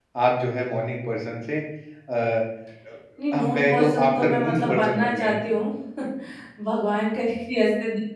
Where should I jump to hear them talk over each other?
3.3 s

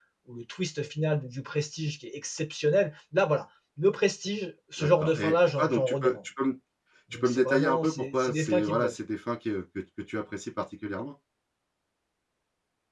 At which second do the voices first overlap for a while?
4.8 s

